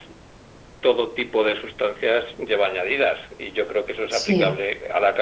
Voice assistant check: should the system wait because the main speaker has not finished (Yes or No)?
Yes